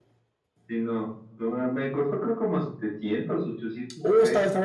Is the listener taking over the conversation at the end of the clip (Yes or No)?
Yes